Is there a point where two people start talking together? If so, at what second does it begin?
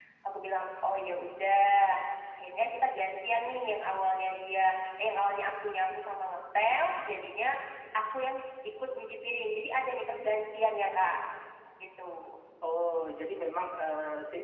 none

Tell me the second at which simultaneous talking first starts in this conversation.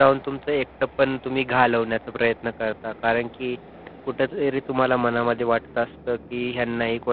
none

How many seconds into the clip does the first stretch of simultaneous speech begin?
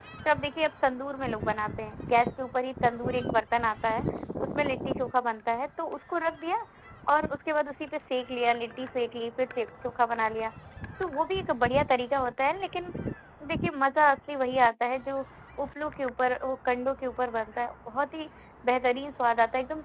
none

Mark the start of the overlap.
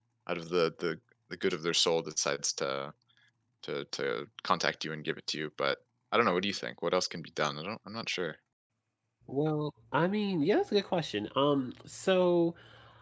none

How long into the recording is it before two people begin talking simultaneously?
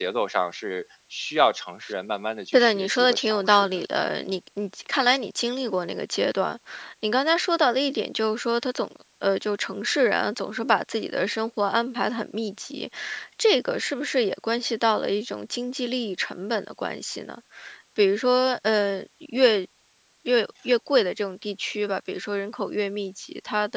2.5 s

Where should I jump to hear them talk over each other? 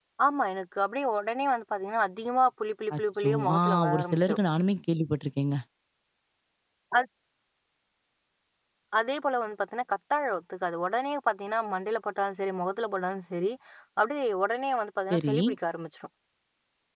3.0 s

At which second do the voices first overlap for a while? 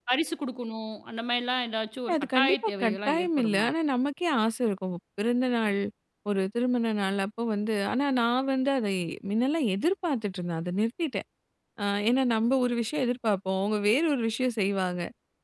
2.1 s

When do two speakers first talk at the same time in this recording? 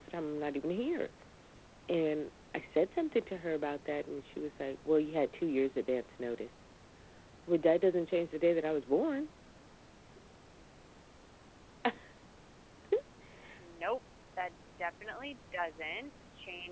none

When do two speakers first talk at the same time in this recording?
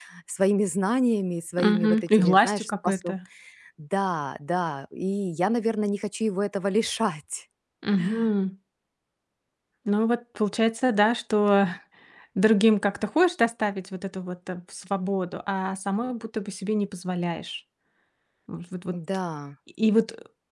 1.6 s

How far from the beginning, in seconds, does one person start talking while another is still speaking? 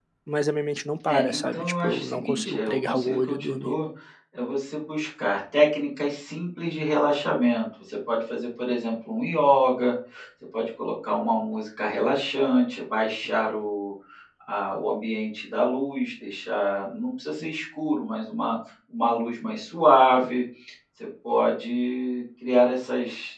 1.1 s

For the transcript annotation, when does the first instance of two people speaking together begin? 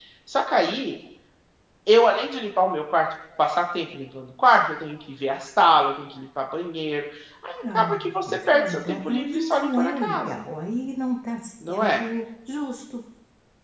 7.7 s

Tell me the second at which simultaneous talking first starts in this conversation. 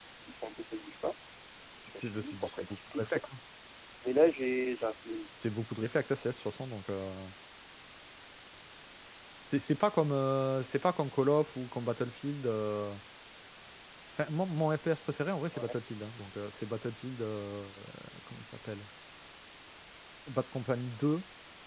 1.9 s

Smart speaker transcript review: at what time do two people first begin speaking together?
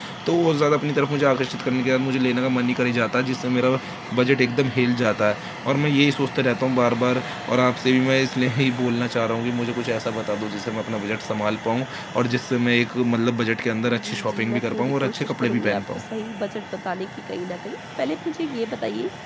13.9 s

